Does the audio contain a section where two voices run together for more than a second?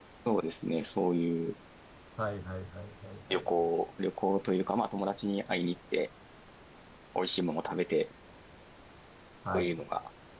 No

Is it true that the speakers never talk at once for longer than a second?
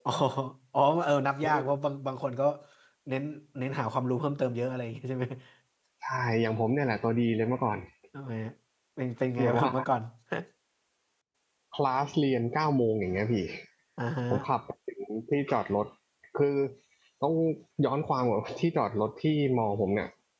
Yes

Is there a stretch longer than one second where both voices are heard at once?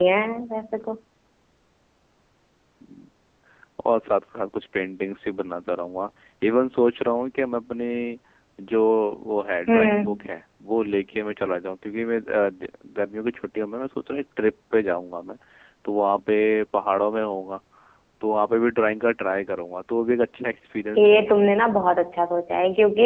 No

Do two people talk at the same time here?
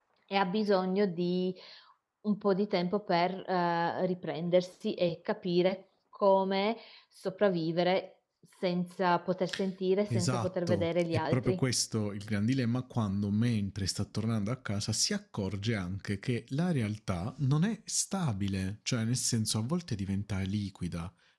Yes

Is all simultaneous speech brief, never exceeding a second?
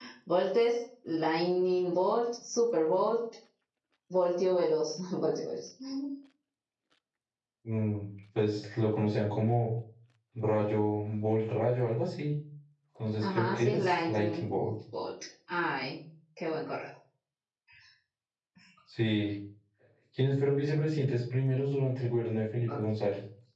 No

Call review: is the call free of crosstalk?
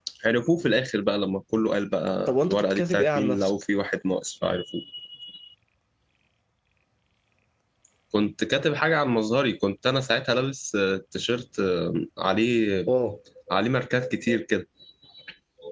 No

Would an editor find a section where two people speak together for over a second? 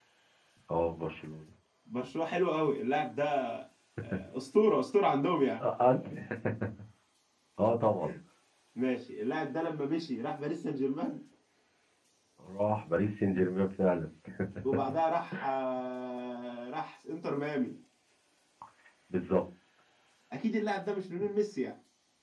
No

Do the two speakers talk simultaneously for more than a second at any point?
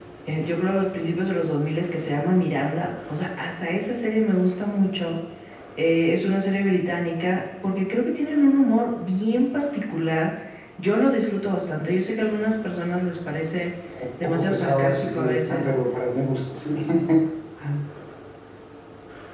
Yes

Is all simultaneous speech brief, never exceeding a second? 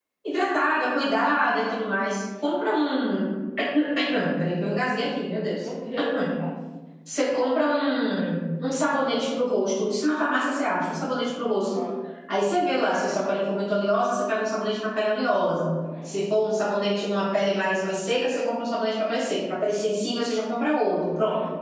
Yes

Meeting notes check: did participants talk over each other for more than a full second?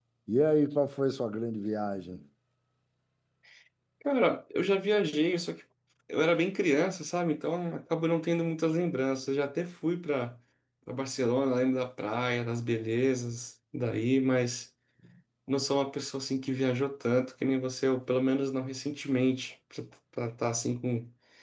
No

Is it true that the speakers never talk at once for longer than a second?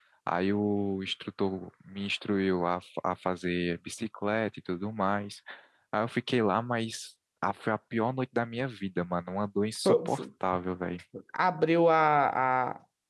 Yes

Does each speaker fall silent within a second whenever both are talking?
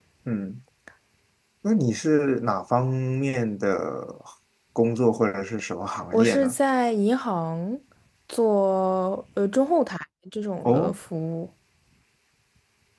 Yes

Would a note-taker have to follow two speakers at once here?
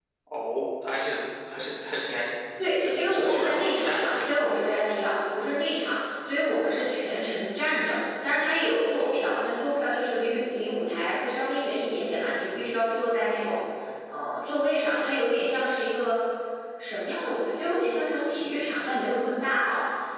Yes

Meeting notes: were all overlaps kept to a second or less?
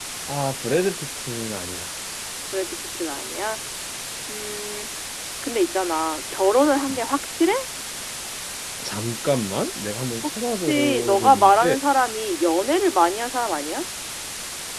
No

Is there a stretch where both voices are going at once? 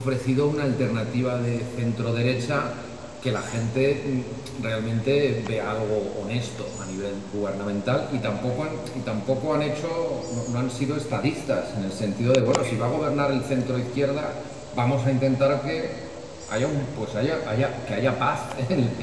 No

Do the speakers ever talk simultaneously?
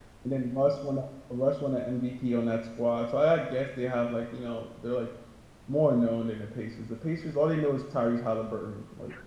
No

